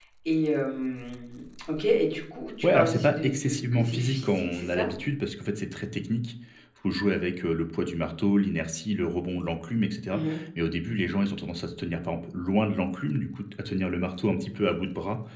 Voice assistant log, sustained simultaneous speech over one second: present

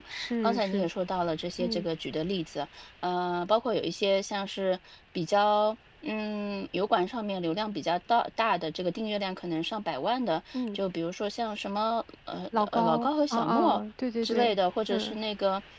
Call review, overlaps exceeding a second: present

